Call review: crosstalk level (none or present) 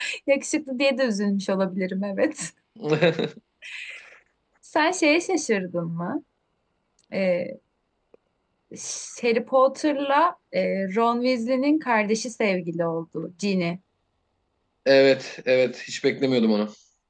none